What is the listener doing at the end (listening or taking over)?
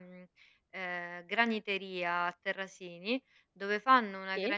listening